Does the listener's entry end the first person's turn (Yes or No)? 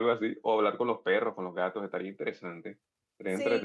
No